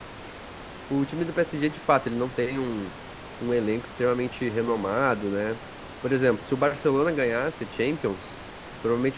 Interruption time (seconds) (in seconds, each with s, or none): none